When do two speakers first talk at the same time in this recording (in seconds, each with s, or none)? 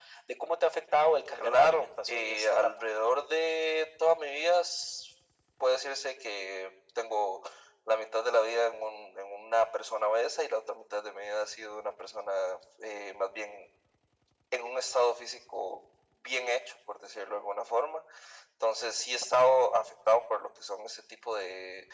1.3 s